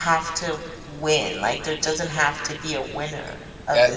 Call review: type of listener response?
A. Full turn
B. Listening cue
A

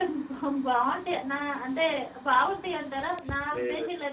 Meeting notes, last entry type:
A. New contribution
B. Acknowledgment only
B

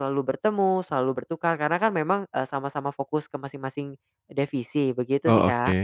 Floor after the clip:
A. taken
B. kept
A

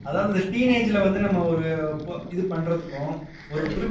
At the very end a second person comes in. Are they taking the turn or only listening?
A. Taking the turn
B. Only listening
B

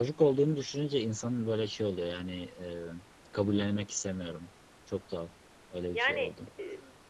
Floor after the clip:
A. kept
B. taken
A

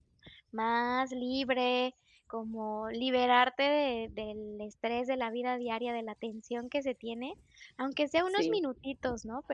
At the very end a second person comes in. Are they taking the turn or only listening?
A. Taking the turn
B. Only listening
B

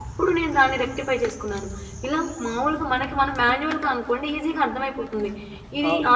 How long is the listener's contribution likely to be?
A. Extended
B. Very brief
B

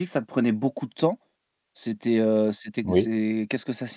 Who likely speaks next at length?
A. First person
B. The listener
A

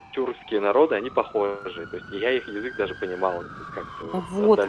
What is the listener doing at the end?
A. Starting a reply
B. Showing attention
A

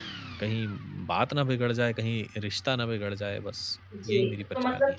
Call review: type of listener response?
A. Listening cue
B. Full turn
B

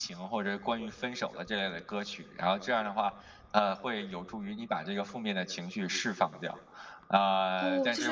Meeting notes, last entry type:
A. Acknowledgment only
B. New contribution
B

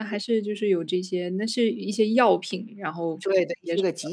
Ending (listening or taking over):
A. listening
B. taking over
B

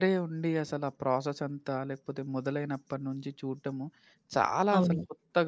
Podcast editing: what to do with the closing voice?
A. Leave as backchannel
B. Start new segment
A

